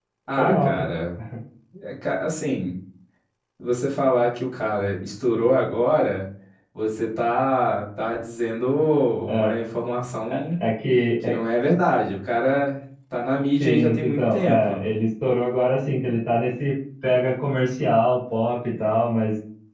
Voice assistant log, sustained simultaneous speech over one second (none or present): present